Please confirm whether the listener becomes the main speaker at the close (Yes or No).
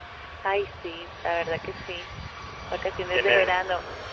Yes